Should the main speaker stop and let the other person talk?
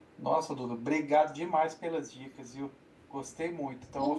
No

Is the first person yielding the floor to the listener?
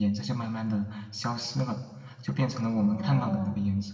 No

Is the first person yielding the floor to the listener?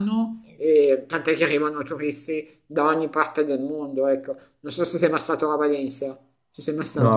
Yes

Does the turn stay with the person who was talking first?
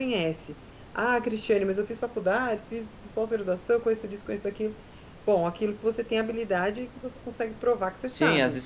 No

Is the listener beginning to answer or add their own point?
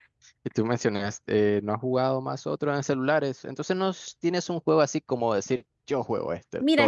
Yes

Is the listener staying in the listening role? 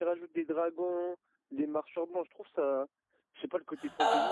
No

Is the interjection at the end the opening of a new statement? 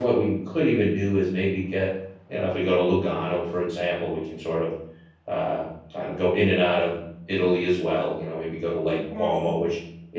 No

